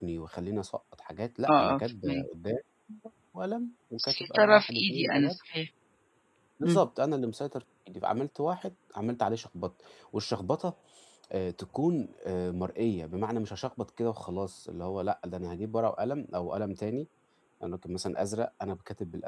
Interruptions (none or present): present